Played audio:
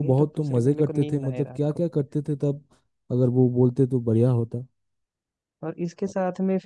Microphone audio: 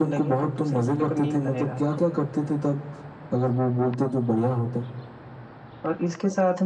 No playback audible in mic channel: No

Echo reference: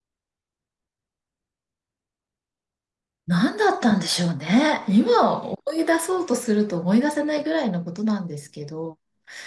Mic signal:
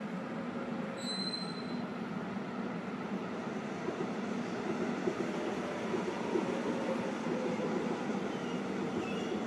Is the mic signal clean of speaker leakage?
Yes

